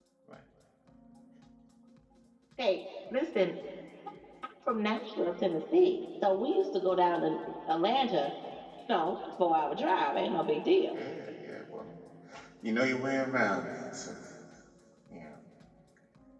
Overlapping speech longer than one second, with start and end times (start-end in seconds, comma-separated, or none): none